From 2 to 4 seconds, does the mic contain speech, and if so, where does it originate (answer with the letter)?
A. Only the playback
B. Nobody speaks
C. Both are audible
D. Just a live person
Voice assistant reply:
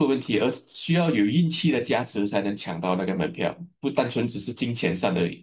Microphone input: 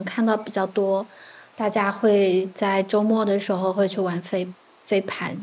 D